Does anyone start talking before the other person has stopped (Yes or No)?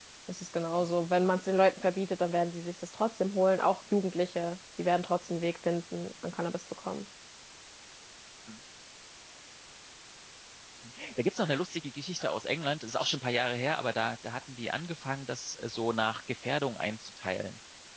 No